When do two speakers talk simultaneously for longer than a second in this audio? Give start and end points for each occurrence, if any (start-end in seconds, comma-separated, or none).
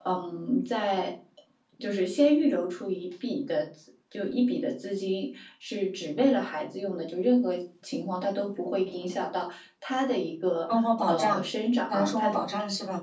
none